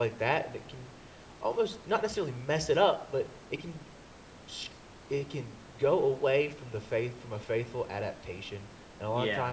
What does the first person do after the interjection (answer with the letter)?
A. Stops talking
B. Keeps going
B